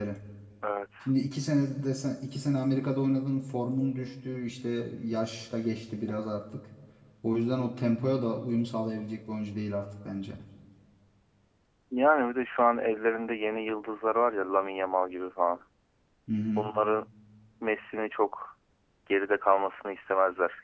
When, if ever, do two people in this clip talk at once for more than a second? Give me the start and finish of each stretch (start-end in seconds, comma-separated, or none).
none